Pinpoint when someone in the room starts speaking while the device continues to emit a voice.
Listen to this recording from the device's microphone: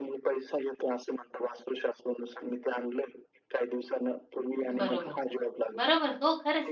4.7 s

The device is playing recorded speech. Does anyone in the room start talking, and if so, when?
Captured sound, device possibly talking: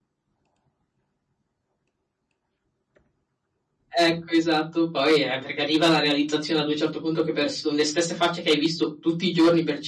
3.9 s

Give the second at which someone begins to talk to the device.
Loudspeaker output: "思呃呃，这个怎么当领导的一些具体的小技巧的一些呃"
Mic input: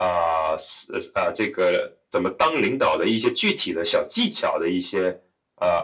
none

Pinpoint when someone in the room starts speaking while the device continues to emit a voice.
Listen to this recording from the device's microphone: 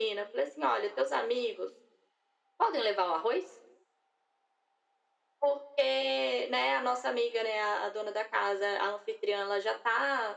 none

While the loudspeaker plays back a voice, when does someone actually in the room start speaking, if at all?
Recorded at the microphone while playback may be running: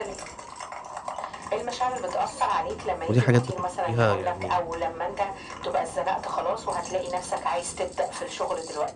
3.1 s

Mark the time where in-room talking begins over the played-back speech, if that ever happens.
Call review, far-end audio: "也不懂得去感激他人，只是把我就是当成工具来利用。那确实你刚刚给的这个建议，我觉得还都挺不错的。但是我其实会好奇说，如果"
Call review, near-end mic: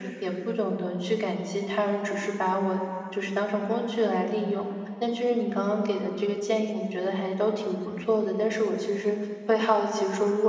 none

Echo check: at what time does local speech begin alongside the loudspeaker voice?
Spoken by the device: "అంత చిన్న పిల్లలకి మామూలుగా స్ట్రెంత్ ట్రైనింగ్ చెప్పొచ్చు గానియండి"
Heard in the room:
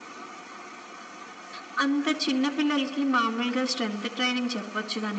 none

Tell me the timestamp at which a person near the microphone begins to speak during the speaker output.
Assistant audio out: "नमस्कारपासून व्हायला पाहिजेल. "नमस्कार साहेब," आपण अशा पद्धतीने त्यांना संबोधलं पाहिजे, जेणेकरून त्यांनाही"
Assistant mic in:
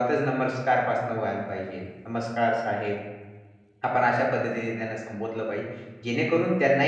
none

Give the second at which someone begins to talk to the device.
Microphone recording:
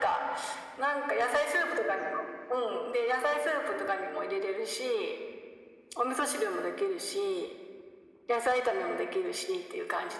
none

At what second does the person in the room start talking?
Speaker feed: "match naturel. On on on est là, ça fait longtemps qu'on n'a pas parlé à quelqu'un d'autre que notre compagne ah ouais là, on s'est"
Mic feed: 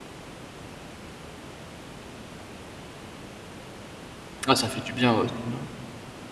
4.5 s

